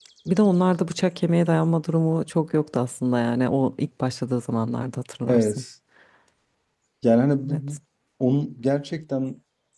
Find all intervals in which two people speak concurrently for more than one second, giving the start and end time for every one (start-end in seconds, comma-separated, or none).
none